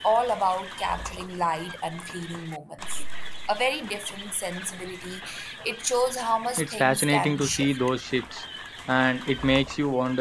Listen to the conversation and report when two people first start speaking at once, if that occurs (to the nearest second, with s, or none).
7 s